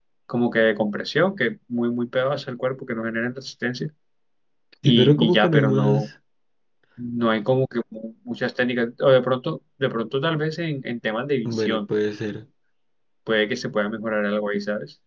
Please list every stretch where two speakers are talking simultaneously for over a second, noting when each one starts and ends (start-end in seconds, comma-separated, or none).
4.8-6.1